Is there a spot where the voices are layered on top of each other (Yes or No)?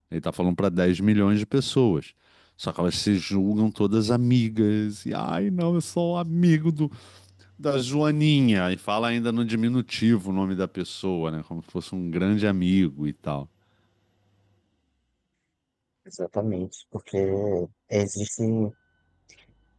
No